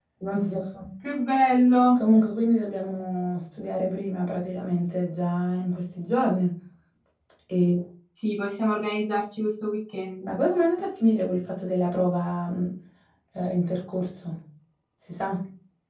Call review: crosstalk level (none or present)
none